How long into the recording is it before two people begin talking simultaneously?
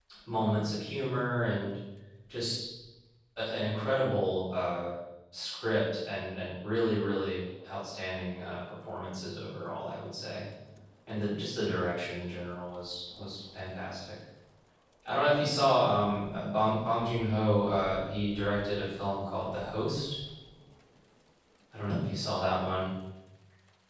none

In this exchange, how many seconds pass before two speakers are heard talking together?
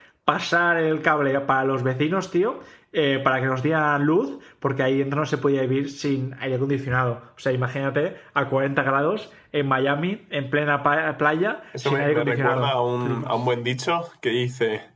11.7 s

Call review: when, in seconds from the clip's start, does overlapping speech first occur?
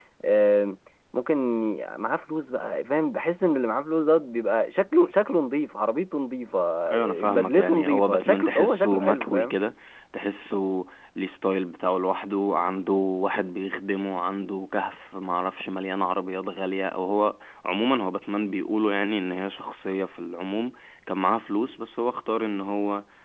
6.9 s

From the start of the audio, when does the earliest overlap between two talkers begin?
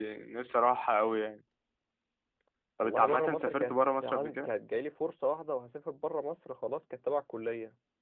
2.8 s

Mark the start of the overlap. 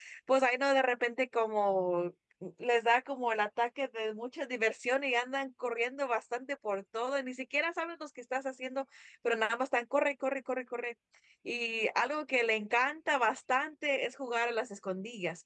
none

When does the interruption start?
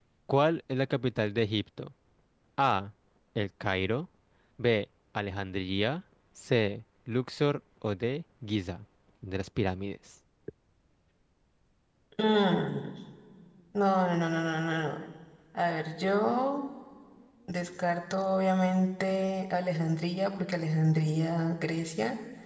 none

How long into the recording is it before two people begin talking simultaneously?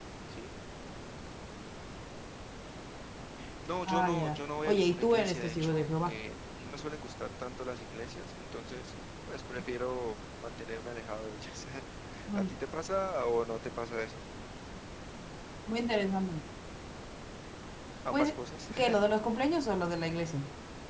3.9 s

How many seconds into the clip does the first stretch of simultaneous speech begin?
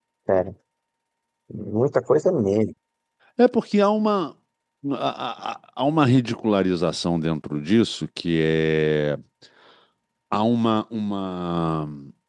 none

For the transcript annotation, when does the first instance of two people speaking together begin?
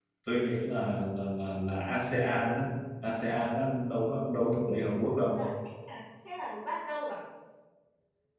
none

